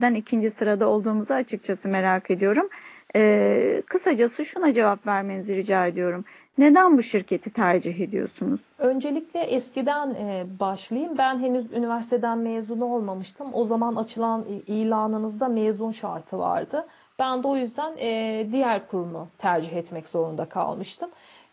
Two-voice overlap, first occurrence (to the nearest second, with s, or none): none